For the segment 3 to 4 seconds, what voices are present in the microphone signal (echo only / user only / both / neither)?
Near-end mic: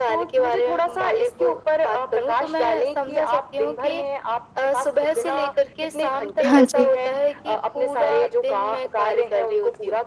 echo only